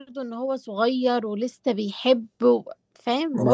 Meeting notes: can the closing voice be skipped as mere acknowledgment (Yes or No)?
No